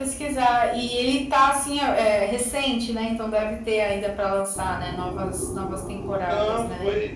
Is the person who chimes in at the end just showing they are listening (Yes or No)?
No